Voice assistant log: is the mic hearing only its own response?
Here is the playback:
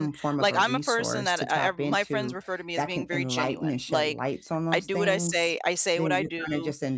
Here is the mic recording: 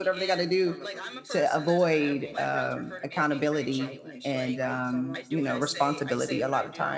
No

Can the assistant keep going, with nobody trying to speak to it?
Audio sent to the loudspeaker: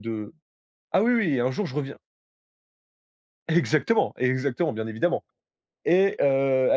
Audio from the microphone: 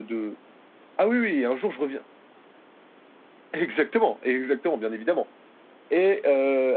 Yes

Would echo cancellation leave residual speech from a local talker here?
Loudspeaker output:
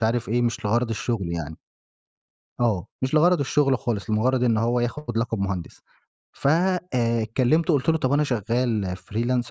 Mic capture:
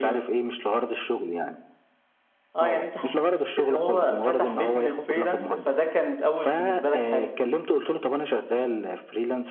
Yes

